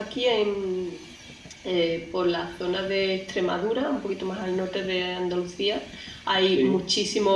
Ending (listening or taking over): listening